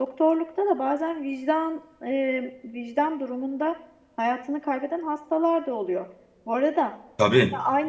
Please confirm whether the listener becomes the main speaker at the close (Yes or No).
No